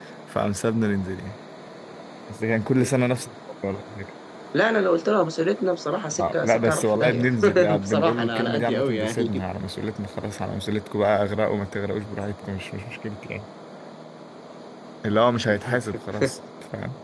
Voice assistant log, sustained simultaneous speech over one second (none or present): present